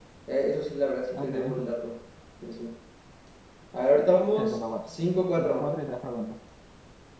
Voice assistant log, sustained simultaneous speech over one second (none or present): none